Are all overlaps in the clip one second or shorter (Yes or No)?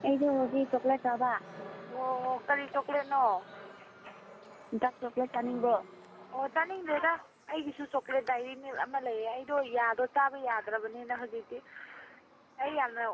Yes